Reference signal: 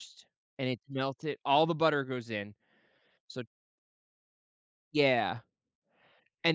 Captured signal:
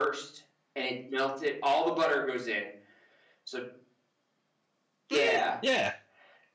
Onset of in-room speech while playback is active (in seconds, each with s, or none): 5.1 s